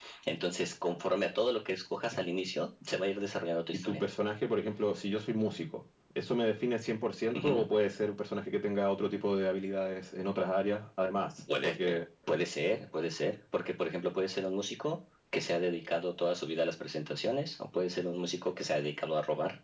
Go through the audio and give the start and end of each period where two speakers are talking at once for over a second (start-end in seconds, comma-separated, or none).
none